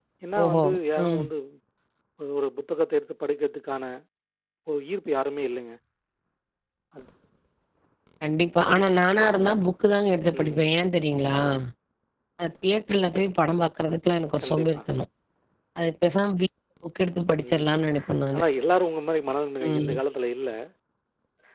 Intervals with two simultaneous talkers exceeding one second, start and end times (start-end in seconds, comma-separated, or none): none